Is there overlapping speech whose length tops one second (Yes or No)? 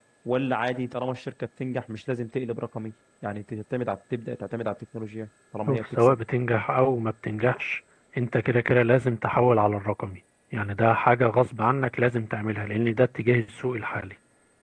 No